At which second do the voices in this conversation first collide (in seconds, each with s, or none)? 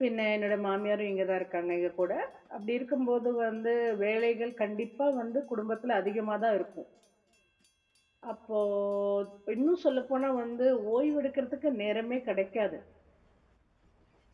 none